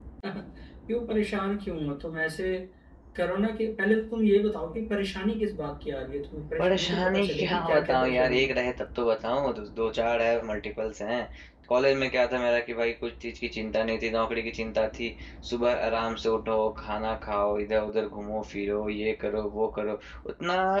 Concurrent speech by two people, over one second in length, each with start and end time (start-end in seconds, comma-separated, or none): 6.6-8.5